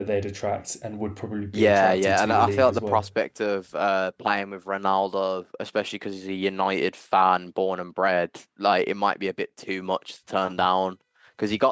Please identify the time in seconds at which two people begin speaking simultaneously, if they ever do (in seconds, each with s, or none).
1.5 s